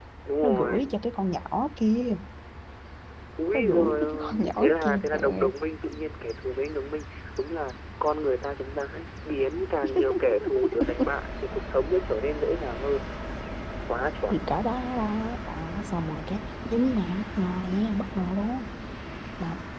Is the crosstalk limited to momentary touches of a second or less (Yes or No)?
No